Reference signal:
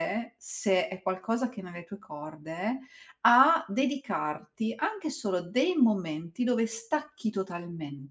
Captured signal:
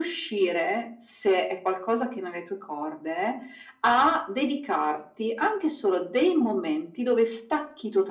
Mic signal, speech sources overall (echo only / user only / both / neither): echo only